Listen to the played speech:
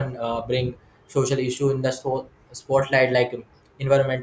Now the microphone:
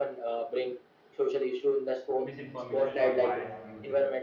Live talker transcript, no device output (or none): misinformation, or biased views.